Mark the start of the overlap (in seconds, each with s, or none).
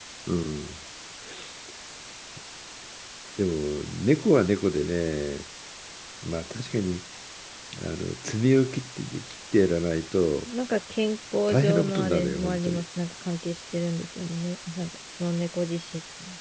11.5 s